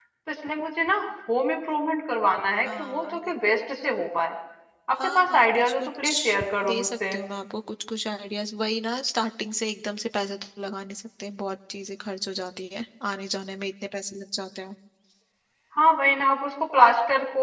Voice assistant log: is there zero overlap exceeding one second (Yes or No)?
No